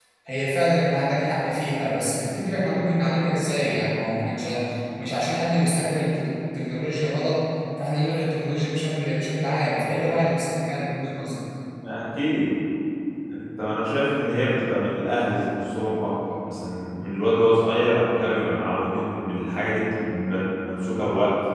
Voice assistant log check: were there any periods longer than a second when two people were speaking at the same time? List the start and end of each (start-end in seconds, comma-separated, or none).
none